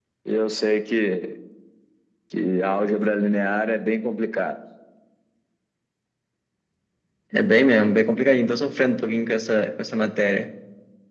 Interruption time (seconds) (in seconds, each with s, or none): none